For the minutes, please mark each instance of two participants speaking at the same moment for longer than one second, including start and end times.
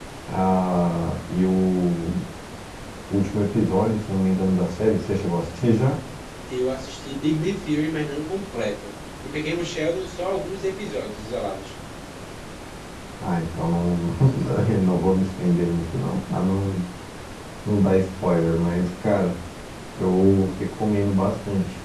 none

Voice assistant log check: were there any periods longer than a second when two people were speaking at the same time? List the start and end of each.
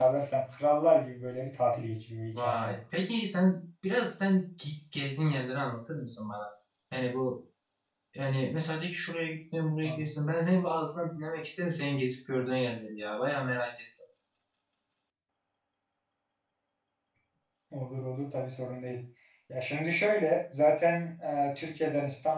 none

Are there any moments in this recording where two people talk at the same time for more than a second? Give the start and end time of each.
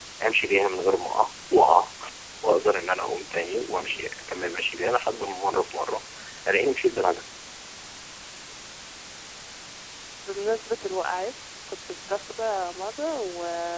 none

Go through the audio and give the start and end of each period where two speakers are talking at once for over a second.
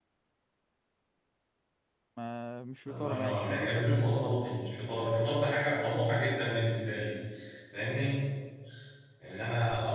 2.9-4.4

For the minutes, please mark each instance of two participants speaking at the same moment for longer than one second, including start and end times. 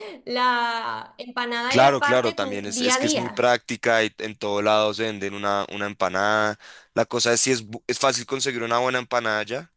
1.7-3.4

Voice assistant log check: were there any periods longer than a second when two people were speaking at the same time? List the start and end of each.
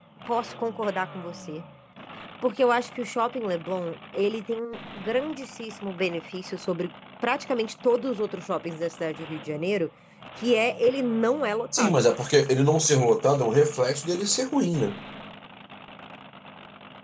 none

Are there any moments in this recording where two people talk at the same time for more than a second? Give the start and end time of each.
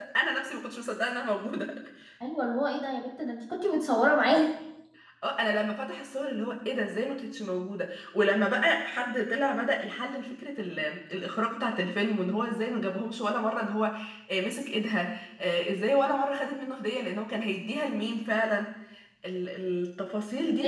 none

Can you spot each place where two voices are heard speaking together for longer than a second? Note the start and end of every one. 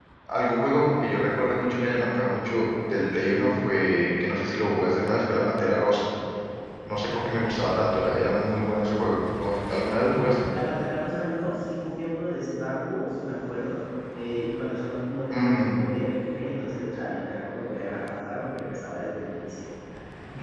none

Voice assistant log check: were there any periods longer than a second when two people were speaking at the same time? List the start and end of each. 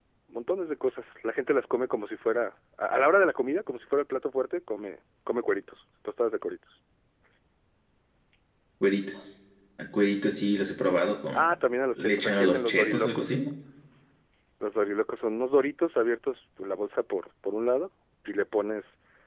12.0-13.4

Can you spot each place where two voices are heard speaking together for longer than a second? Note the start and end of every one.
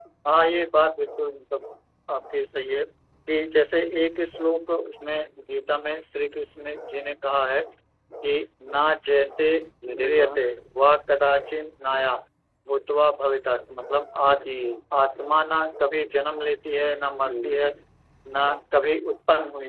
none

